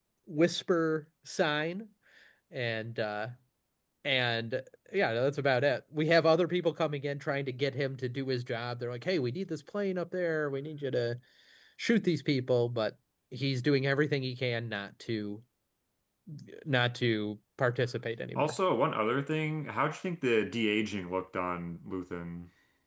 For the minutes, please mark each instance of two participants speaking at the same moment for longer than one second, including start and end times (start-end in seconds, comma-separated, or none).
none